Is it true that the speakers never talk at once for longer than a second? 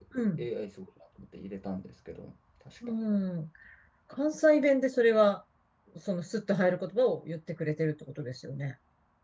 Yes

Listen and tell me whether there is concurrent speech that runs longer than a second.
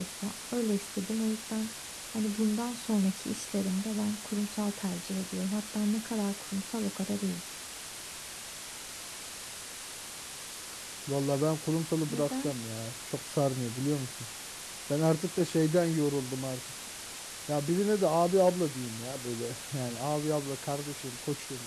No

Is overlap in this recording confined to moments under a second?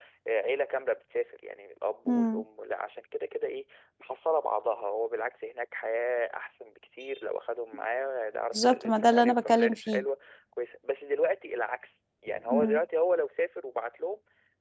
No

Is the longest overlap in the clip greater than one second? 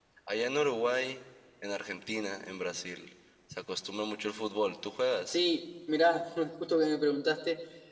No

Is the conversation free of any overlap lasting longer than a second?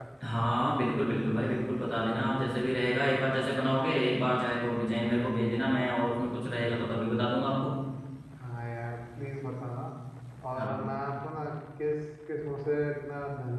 Yes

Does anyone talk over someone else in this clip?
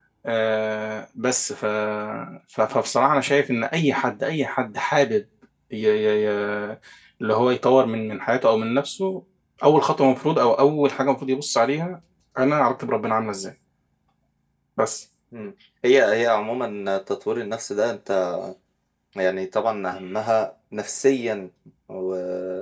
No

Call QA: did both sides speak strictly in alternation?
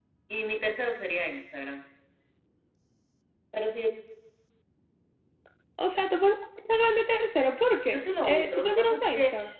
No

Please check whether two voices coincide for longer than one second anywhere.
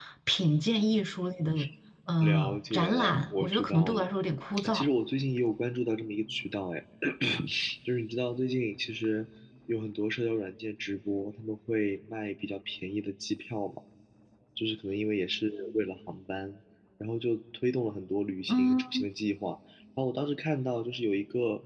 Yes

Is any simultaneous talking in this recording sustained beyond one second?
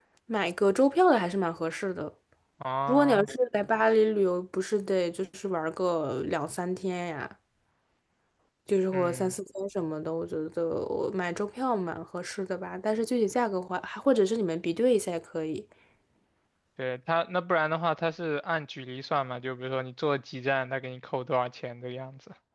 No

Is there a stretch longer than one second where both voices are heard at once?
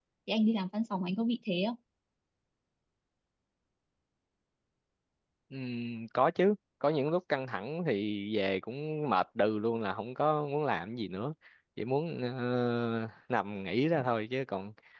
No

